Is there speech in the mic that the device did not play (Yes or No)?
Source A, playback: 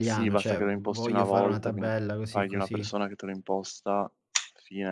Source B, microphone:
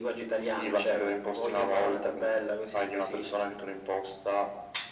No